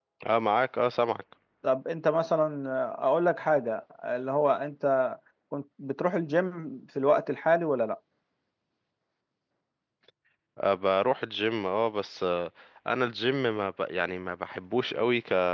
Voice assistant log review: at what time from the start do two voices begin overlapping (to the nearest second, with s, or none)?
none